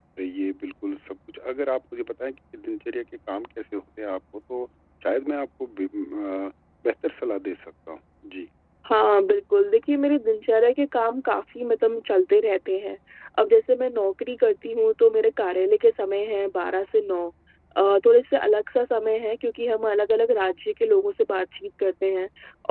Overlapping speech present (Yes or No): No